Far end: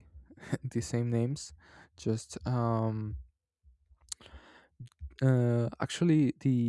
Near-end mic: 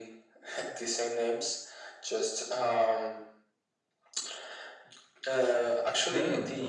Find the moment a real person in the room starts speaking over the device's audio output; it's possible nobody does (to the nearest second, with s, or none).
5 s